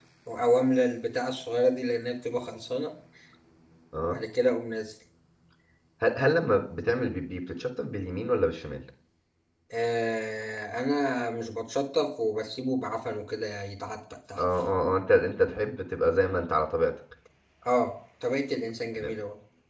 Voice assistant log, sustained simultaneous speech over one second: none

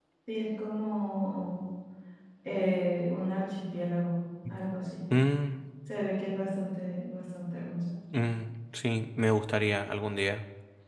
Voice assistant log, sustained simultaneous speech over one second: none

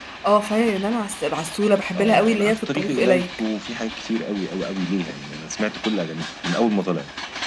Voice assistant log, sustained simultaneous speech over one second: present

